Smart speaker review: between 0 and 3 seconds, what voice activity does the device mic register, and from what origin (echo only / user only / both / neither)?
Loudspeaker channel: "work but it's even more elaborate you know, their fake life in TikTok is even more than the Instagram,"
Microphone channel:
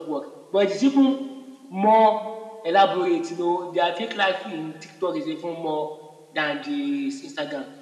echo only